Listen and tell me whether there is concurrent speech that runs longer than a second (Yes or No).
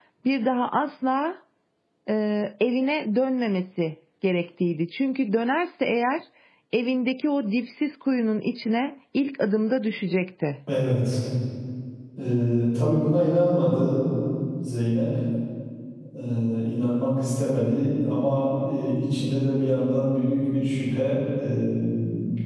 No